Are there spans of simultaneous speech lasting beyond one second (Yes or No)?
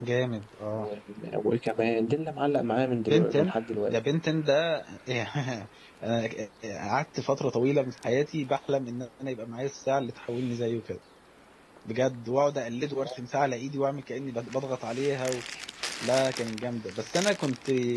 No